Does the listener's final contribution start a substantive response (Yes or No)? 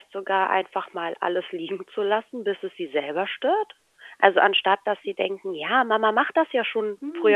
No